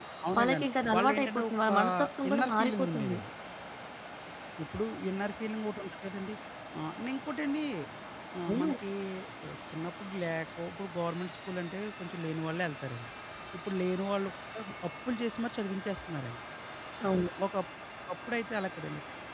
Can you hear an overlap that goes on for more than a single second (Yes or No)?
Yes